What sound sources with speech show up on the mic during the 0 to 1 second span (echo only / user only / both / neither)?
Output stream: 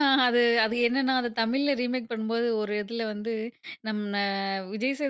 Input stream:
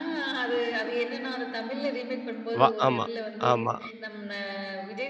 echo only